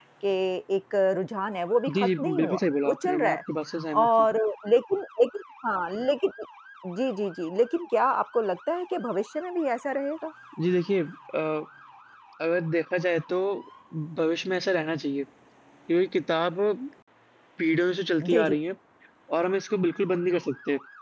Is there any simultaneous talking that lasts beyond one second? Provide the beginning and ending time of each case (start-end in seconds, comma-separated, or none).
2.0-3.4